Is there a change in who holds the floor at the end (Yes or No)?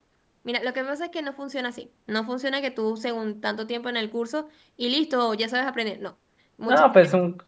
Yes